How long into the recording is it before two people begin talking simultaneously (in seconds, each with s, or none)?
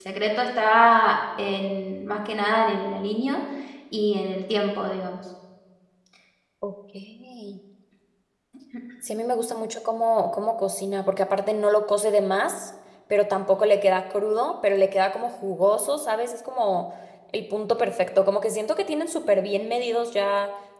none